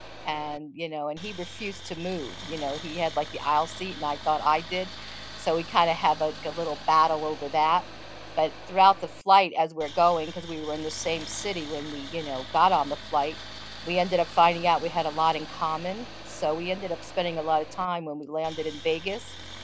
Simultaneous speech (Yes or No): No